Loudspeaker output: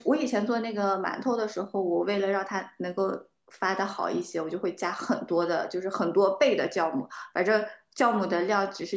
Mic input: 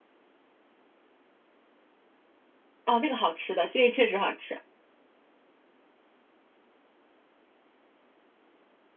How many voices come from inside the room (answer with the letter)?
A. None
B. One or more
B